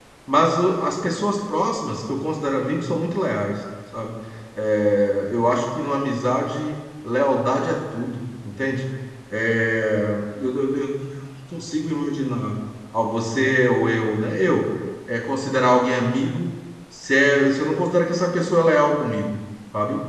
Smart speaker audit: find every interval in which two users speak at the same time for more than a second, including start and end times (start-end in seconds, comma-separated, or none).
none